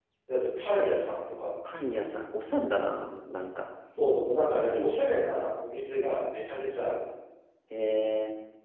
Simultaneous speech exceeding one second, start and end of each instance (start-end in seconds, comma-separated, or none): none